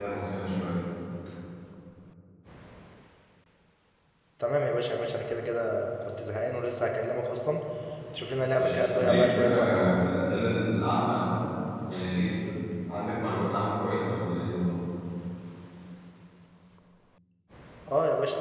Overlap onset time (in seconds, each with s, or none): 8.6 s